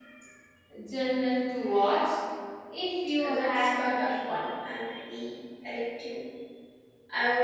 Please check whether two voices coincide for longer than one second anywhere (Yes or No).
Yes